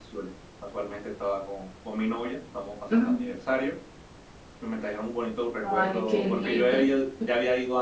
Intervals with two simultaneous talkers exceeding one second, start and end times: 5.6-6.9

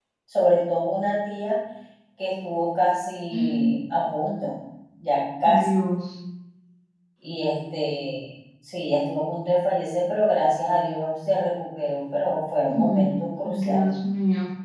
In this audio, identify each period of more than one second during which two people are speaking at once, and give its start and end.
none

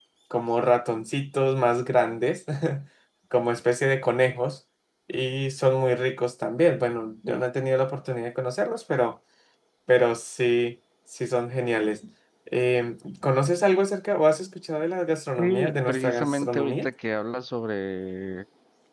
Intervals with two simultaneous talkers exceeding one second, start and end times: 15.4-16.9

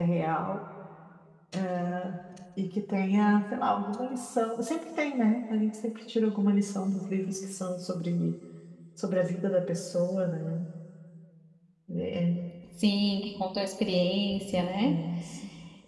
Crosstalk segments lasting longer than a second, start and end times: none

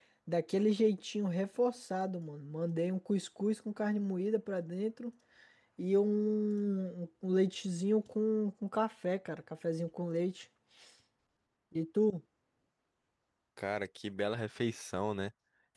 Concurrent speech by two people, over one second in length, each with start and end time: none

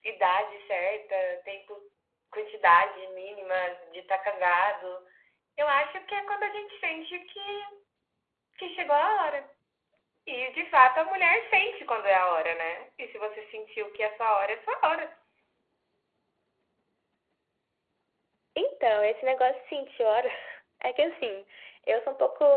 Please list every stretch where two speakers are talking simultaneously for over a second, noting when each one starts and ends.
none

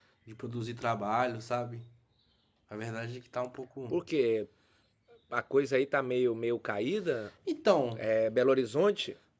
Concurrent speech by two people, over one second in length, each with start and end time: none

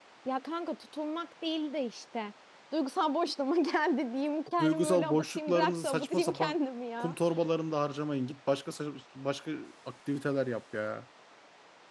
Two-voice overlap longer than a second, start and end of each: 4.6-6.6

